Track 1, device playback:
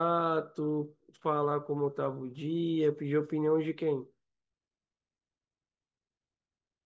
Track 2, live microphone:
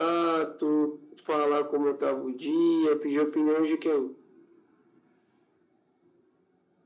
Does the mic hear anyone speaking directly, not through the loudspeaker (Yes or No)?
No